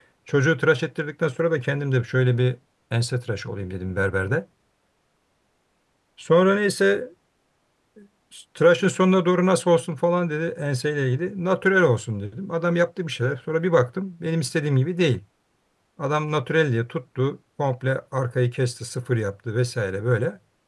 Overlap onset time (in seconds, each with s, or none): none